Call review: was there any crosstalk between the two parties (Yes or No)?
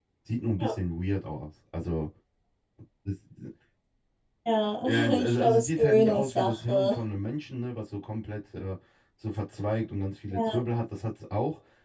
Yes